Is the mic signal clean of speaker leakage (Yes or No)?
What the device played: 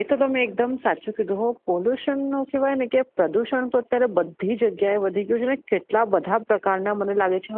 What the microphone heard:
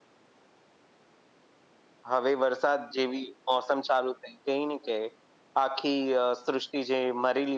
Yes